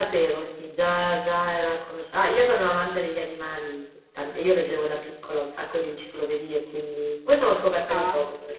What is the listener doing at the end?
listening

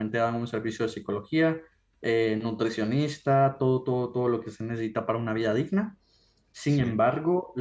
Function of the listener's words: listening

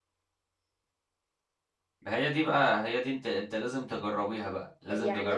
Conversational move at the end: taking over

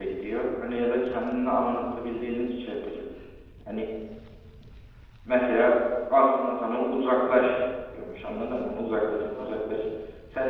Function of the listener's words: listening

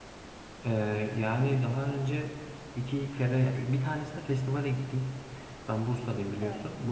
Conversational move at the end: listening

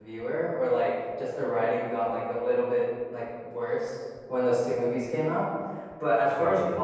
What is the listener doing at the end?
listening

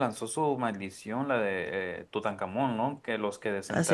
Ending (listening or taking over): listening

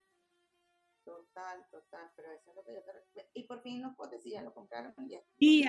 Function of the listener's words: taking over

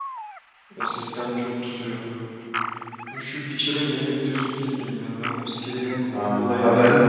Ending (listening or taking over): taking over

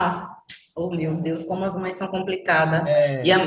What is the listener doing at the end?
listening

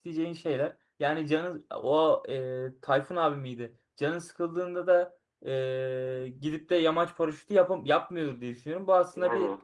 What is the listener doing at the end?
listening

